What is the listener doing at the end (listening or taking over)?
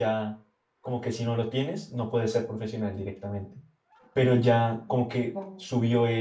listening